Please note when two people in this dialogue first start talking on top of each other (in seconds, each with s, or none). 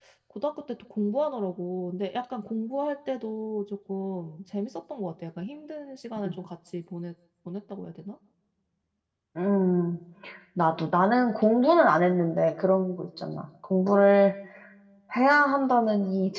none